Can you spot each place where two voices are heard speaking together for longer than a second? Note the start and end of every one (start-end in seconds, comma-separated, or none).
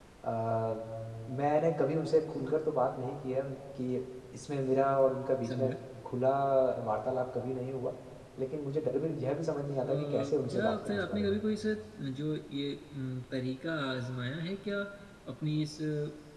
9.8-11.3